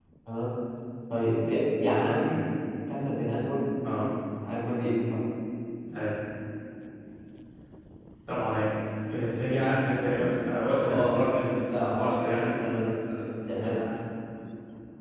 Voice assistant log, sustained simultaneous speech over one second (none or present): present